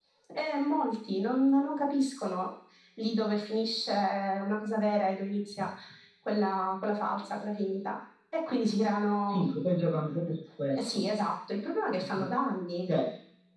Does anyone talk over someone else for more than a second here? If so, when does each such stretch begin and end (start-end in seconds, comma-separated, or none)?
none